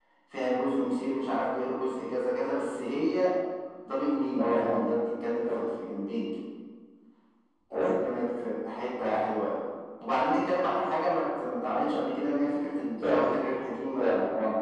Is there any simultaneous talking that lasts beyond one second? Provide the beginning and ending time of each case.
none

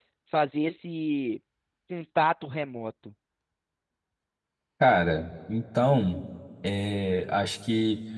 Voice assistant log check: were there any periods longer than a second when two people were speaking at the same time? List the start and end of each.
none

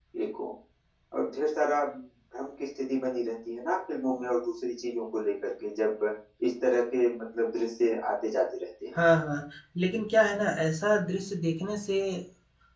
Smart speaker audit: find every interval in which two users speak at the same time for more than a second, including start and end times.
none

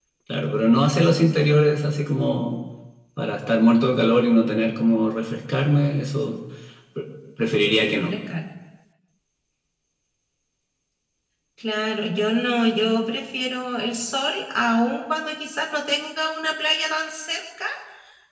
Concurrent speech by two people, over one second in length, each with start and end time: none

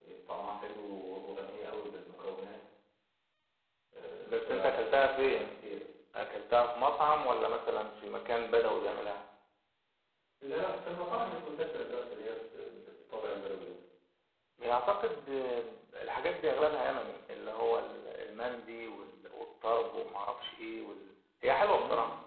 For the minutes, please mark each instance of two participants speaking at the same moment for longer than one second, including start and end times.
4.2-5.5

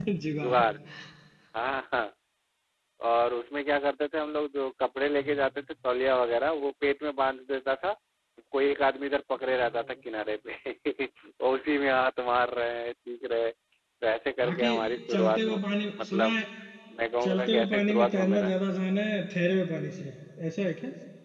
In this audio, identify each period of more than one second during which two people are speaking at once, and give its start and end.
17.2-18.5

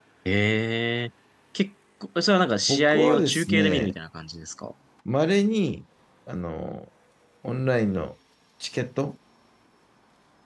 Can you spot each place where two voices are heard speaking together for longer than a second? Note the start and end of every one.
2.6-3.9

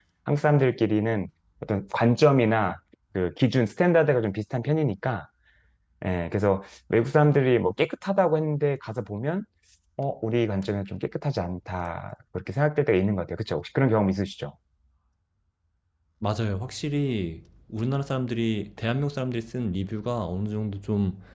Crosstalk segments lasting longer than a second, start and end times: none

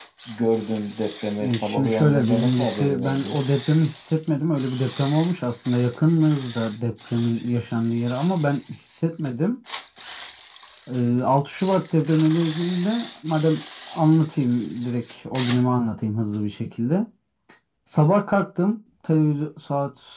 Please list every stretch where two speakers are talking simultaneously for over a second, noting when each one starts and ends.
1.4-3.4

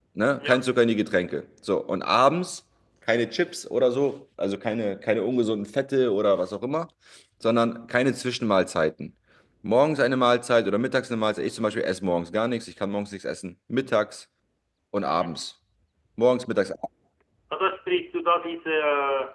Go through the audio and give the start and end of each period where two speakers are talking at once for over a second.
none

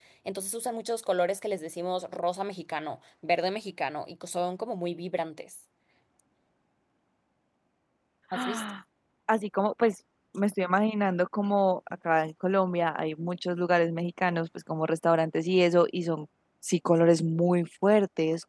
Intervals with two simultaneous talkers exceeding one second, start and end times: none

